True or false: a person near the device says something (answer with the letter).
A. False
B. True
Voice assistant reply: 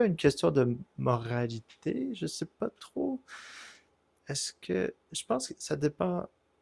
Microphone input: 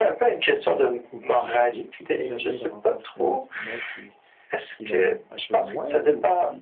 B